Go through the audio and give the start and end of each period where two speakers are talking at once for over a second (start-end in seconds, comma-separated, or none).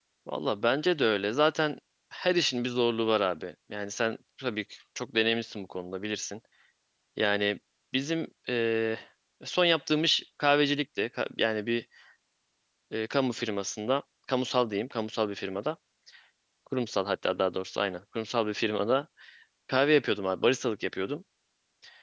none